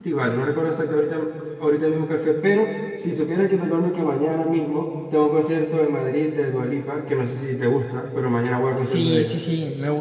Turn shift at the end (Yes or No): Yes